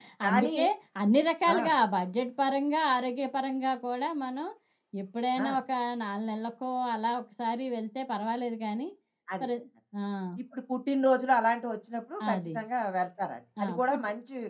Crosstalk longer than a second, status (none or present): none